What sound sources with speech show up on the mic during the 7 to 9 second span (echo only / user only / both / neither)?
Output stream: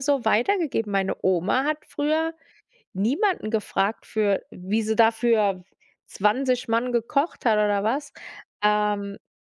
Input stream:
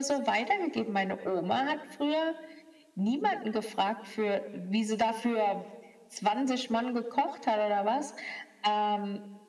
echo only